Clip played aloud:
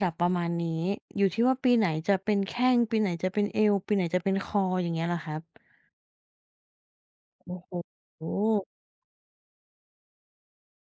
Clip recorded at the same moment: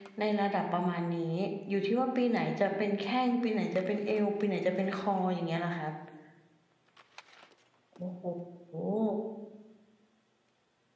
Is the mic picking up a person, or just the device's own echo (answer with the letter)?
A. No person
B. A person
A